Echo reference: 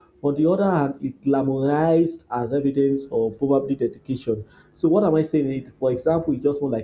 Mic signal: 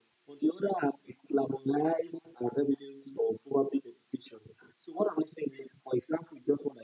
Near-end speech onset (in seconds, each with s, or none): none